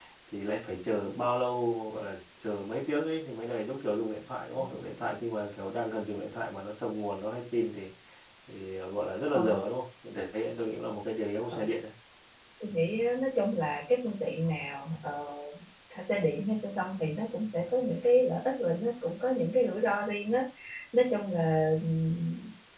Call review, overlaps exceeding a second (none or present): none